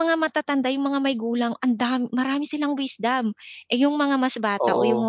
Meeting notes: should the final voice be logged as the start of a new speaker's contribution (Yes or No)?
No